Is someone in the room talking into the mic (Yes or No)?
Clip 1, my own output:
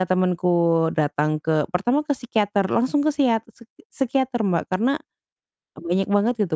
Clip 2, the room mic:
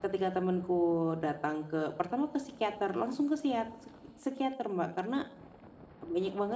No